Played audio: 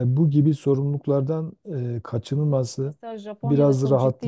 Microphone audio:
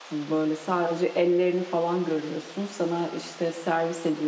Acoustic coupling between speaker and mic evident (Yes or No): No